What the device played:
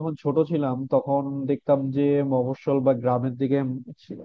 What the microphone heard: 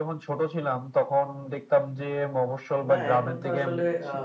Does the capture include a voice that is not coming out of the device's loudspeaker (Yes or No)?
Yes